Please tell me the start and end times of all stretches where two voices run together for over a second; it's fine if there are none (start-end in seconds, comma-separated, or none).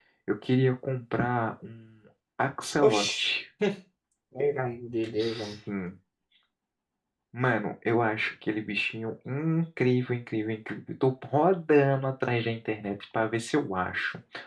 none